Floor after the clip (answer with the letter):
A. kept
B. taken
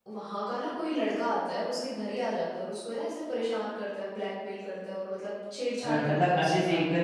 B